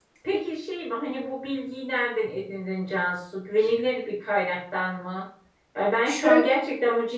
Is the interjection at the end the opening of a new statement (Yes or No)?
No